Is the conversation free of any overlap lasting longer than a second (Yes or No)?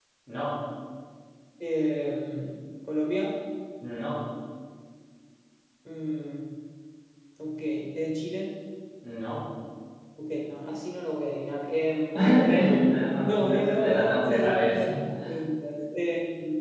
No